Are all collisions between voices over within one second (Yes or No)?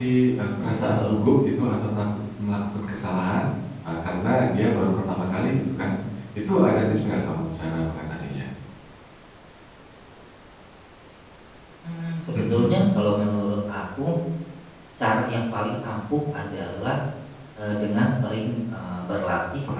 Yes